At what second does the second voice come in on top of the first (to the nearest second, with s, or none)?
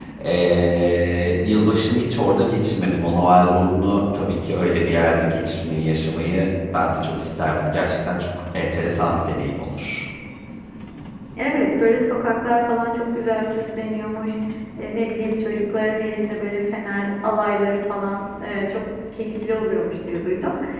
none